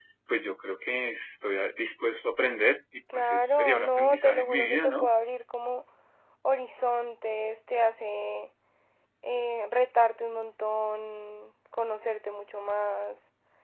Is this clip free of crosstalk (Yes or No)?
No